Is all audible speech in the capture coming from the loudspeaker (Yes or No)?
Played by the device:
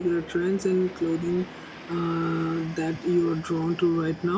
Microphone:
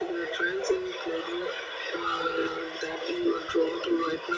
Yes